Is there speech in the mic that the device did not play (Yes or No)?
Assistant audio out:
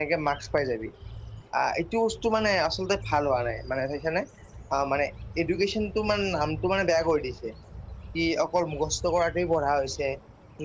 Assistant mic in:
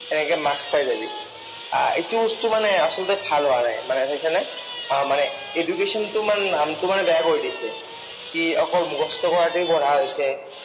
No